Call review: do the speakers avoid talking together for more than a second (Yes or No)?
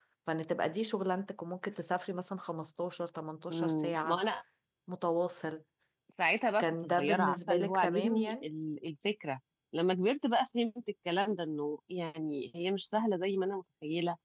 No